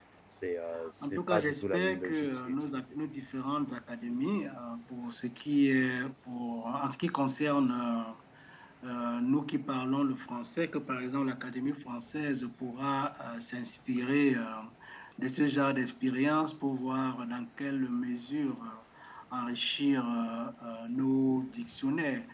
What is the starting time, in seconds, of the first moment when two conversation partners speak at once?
1.0 s

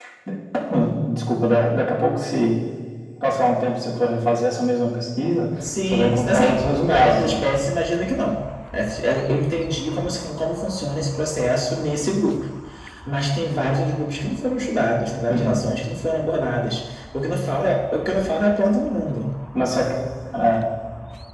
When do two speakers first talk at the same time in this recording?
5.9 s

